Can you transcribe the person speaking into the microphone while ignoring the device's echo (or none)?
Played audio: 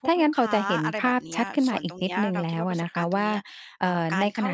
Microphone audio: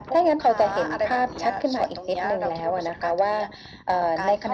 none